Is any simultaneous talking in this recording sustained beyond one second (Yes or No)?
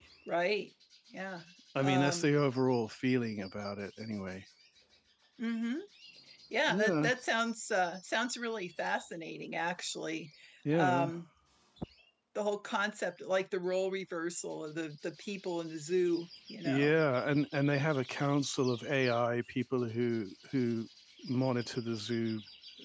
No